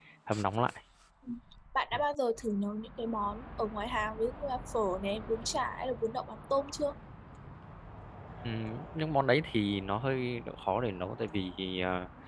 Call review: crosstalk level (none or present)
none